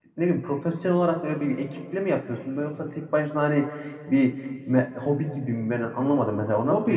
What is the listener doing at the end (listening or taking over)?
taking over